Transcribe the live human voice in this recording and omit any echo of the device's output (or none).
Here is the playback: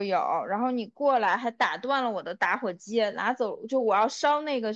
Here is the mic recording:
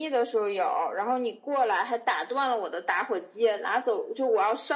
none